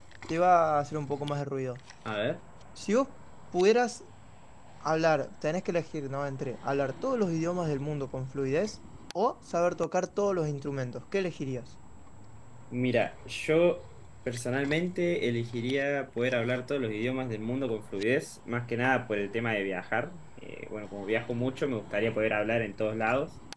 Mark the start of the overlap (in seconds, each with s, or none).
none